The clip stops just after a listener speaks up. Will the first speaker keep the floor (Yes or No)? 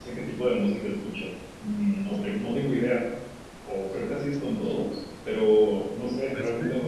Yes